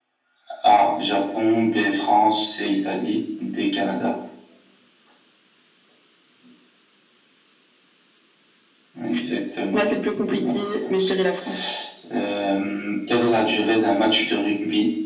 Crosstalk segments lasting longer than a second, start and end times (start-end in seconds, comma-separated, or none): 9.7-11.1